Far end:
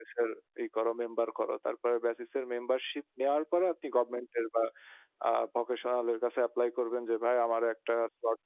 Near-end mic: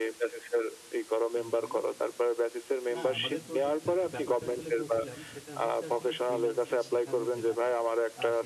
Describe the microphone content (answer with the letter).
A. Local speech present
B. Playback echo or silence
A